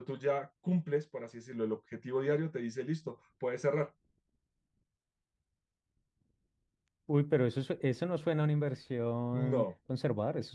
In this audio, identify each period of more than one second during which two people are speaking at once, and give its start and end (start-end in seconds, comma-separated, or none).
none